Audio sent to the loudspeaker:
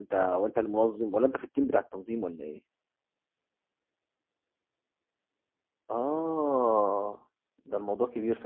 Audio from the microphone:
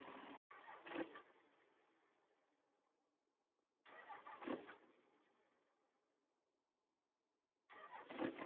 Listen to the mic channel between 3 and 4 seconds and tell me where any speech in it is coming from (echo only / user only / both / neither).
neither